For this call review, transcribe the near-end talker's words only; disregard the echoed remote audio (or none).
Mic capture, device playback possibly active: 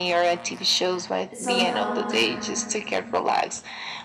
somehow